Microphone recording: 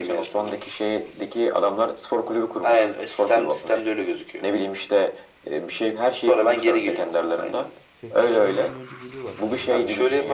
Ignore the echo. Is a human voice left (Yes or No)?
Yes